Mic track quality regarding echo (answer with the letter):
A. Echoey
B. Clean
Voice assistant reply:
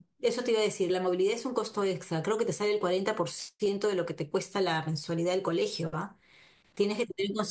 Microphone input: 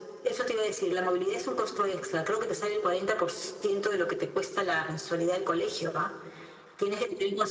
A